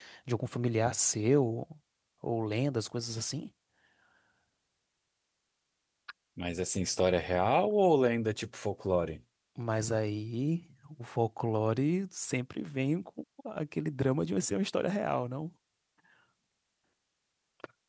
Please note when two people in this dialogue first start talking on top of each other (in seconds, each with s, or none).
none